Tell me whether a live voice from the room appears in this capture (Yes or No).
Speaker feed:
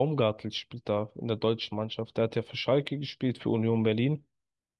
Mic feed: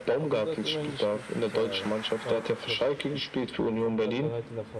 Yes